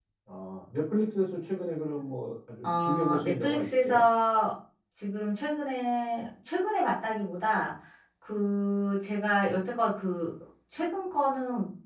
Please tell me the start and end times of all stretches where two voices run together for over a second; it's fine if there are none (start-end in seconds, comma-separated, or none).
2.6-4.0